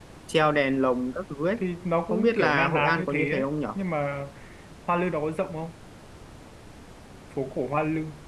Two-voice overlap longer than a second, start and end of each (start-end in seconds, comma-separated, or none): 2.1-3.5